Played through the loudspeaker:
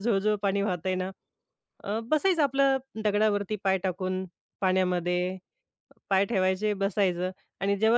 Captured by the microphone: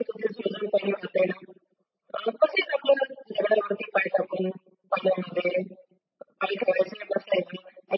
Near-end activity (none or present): none